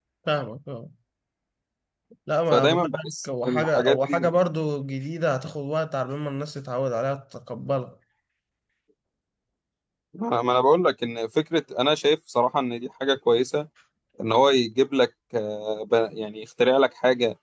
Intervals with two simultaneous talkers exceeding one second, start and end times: 2.5-4.2

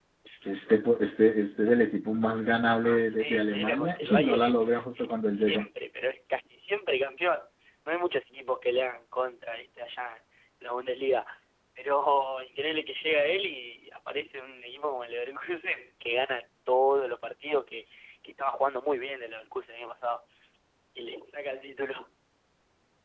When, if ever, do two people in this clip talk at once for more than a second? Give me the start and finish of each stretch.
2.9-5.7

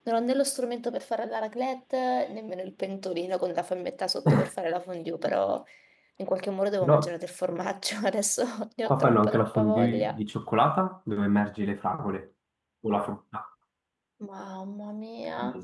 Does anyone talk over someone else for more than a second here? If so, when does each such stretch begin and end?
8.8-10.2

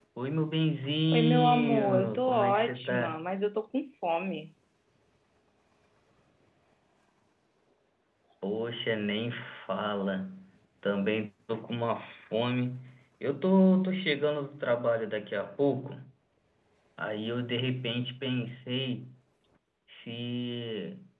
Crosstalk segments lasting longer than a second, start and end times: 1.1-3.3

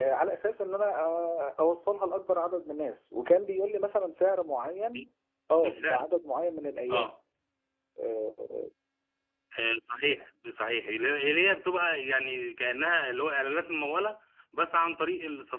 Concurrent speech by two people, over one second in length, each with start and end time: none

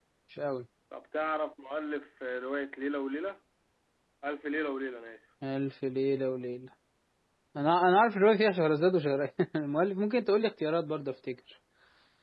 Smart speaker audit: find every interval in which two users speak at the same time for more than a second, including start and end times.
none

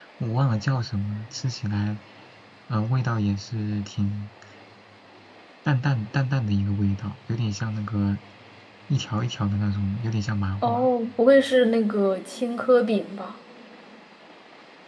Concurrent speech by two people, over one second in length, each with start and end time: none

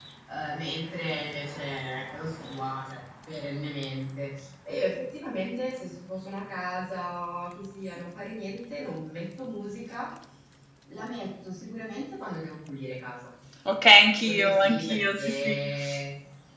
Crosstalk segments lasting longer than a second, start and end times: 14.2-15.6

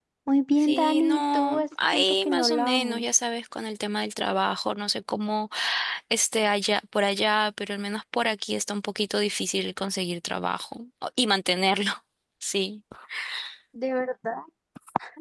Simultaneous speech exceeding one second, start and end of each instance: 0.6-3.0

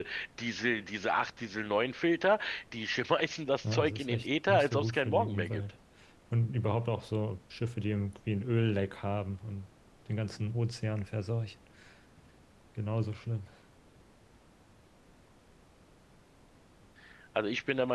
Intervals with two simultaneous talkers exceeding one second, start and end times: 3.7-5.6

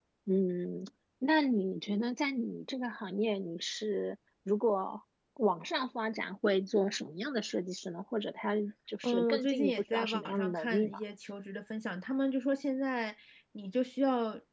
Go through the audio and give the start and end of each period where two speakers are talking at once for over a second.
9.0-11.0

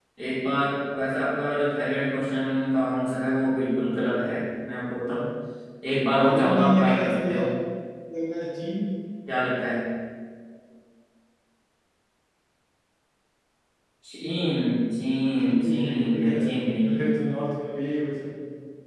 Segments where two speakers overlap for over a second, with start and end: 6.2-7.5, 15.5-17.0

